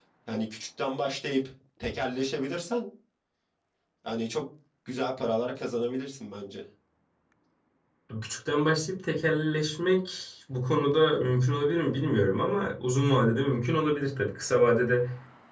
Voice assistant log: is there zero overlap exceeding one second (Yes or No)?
Yes